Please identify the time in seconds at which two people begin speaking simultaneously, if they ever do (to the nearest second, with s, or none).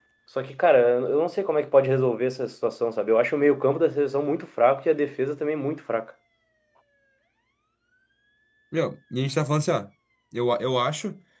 none